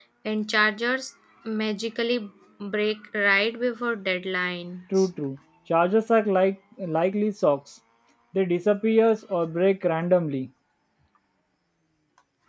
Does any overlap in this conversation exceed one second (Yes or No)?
No